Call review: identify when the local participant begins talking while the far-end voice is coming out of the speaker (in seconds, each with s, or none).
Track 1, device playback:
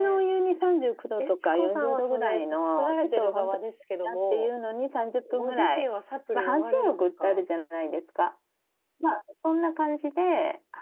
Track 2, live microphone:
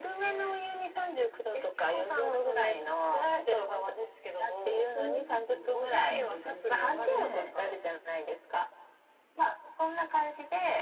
4.9 s